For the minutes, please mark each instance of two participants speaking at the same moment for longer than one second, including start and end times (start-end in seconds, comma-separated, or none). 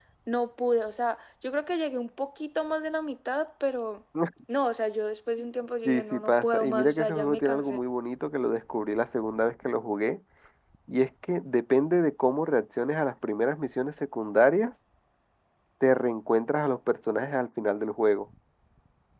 5.8-7.8